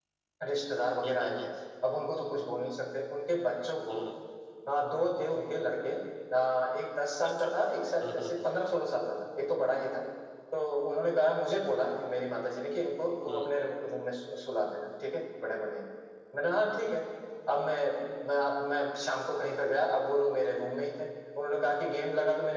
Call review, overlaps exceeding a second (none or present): none